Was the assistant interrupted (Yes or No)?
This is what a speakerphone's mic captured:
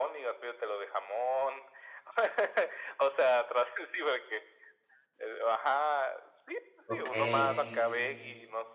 Yes